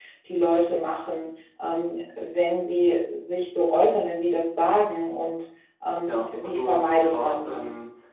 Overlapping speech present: Yes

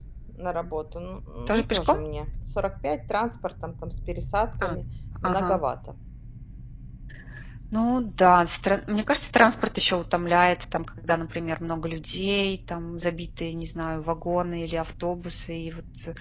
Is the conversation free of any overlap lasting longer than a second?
Yes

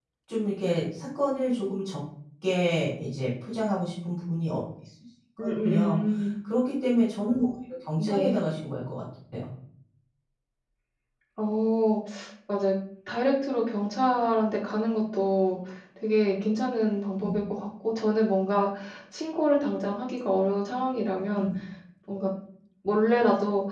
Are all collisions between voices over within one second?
Yes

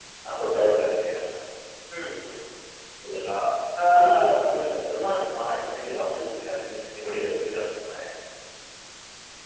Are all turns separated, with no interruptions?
No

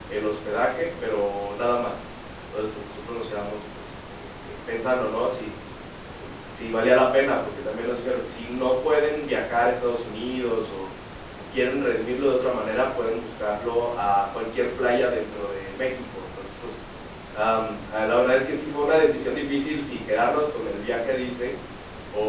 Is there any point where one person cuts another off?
No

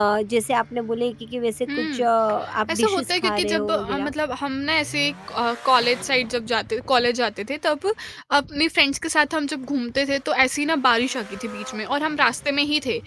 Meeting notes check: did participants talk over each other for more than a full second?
Yes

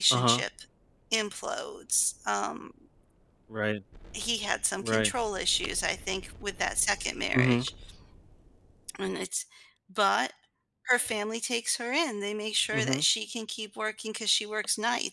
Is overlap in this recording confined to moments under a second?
Yes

